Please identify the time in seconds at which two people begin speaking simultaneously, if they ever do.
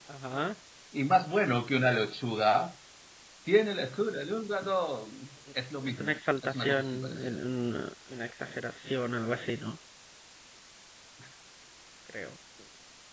5.8 s

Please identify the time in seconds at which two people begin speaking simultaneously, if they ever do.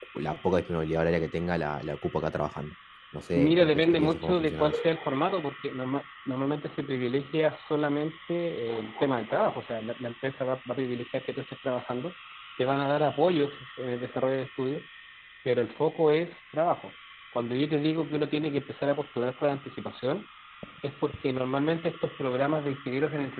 3.3 s

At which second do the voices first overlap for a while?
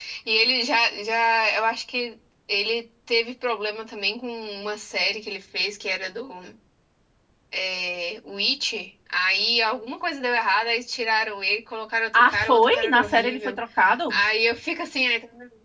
12.2 s

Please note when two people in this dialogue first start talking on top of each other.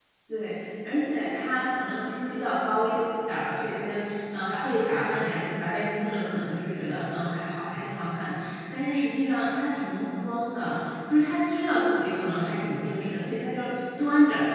none

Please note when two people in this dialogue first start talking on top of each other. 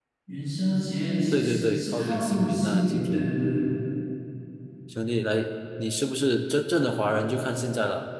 1.3 s

